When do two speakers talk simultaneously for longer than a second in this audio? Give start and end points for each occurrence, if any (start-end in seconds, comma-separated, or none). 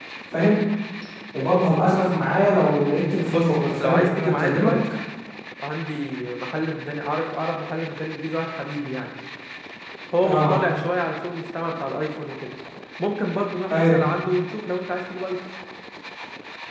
3.3-4.7